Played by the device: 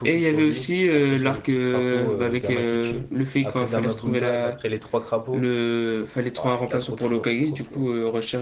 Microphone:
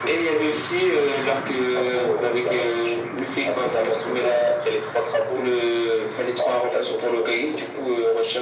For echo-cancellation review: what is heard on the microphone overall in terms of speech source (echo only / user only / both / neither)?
echo only